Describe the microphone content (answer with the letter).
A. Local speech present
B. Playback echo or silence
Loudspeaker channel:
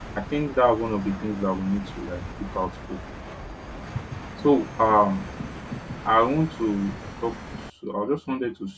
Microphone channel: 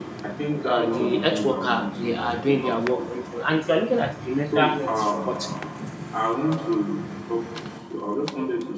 A